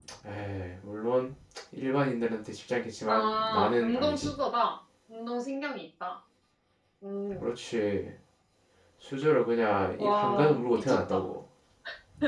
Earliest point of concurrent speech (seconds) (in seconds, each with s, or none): 3.1 s